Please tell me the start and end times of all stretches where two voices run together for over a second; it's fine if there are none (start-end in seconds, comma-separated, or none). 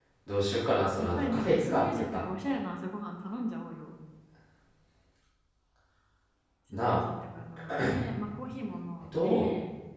1.0-2.2